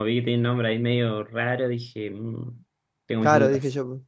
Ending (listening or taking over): taking over